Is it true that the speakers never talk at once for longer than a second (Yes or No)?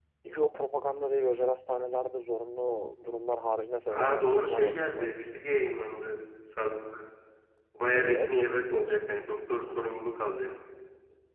No